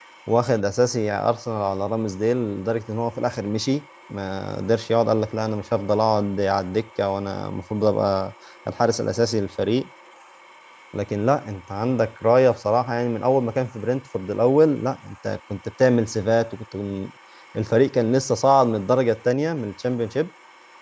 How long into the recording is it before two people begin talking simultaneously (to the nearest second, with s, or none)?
none